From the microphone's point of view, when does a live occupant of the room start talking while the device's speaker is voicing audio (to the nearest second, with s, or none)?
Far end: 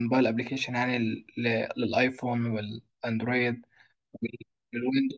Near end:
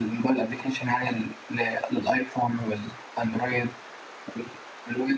none